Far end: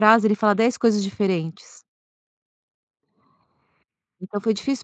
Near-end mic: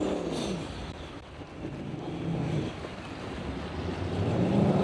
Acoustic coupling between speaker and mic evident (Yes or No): No